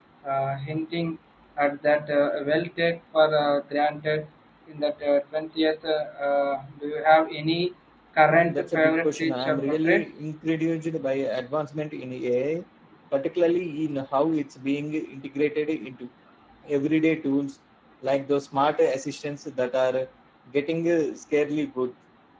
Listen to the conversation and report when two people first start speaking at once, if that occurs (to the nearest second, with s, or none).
8 s